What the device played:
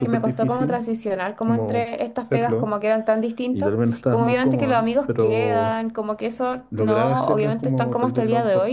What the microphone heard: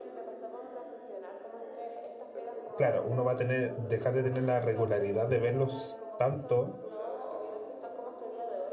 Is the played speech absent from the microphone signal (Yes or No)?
No